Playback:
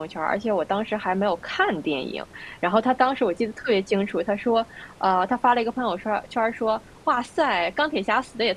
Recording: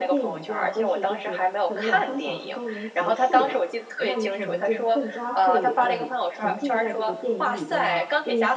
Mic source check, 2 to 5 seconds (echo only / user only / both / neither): both